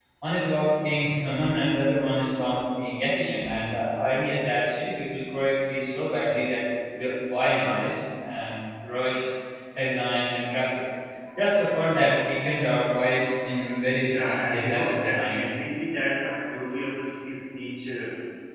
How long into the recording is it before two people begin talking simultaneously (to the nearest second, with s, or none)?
14 s